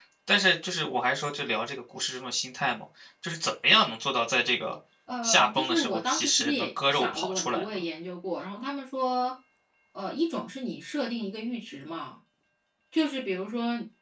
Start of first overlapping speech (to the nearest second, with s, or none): 5 s